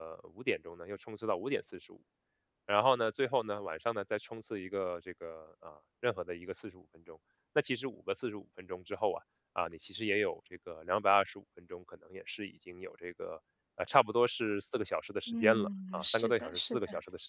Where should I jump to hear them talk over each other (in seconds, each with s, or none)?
15.3 s